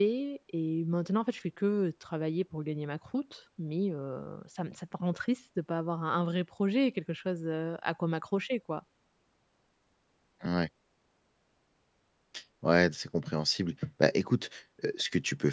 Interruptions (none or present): none